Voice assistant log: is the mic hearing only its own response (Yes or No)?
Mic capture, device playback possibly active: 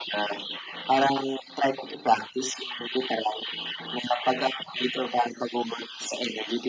Yes